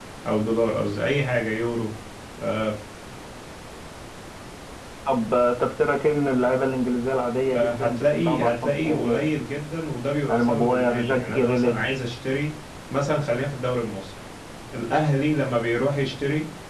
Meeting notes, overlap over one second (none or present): present